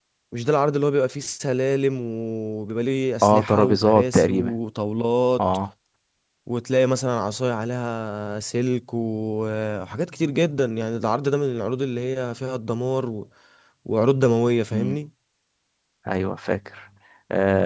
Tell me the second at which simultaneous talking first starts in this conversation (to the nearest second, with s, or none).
3 s